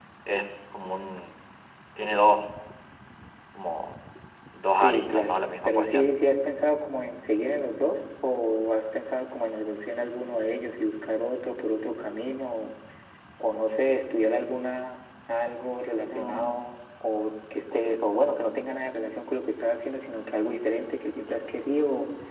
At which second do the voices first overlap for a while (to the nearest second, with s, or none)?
5 s